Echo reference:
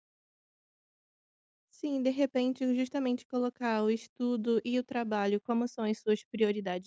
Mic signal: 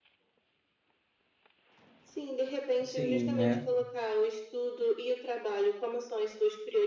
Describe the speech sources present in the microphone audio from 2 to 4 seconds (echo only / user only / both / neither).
both